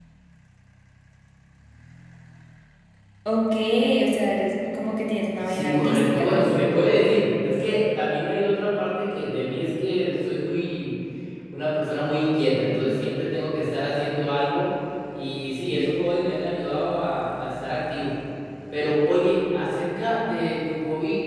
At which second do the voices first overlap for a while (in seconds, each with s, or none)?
5.5 s